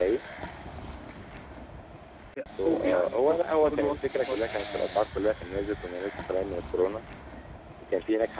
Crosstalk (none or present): present